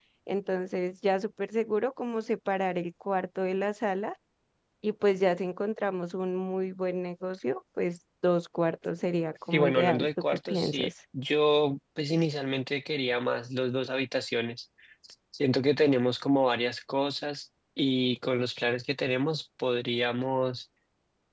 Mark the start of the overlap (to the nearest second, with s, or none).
10 s